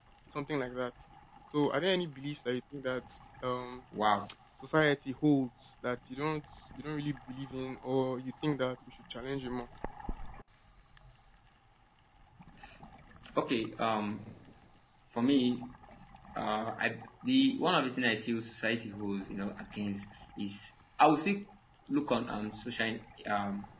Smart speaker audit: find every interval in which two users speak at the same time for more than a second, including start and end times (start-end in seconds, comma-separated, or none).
none